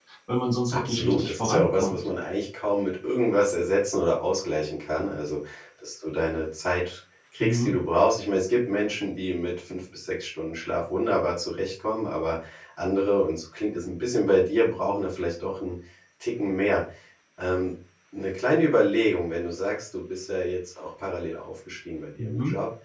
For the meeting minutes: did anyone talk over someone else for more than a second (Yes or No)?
Yes